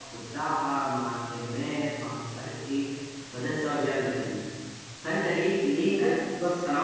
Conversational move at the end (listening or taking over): listening